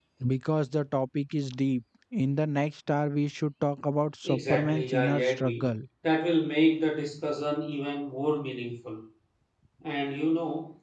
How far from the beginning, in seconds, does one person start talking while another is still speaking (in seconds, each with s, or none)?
4.2 s